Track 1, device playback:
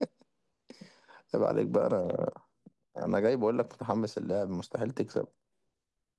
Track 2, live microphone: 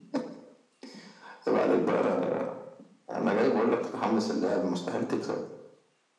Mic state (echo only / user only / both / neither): echo only